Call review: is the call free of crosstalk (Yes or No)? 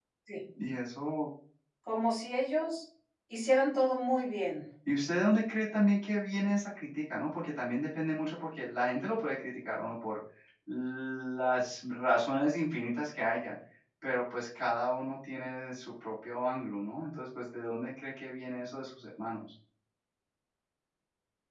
Yes